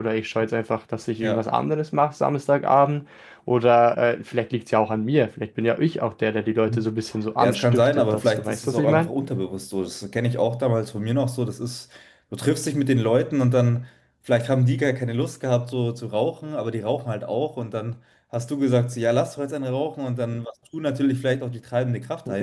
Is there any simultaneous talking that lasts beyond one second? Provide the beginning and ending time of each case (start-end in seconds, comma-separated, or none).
7.4-9.1